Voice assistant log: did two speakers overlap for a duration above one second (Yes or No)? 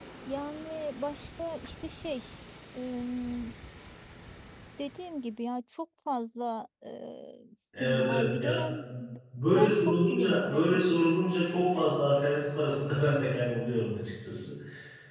Yes